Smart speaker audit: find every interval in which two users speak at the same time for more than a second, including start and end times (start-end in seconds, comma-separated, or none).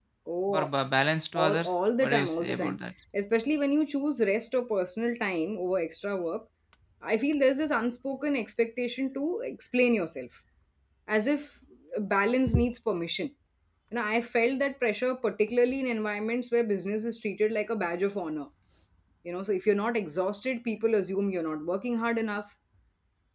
1.4-2.8